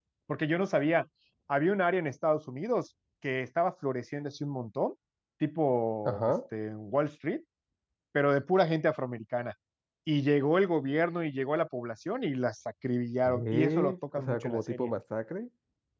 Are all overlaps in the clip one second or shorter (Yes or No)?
No